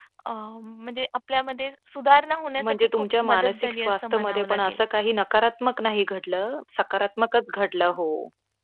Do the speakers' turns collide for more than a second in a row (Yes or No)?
Yes